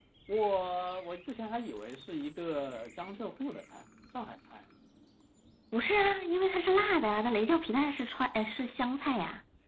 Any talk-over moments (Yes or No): No